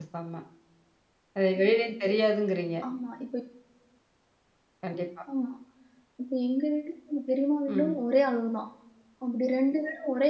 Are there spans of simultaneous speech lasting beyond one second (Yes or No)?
No